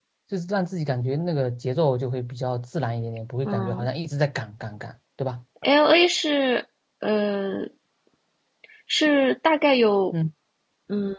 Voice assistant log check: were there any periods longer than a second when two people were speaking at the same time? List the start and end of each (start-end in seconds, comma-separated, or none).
none